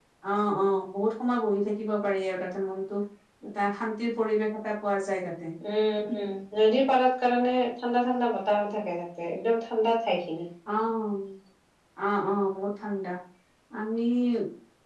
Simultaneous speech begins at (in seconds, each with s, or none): none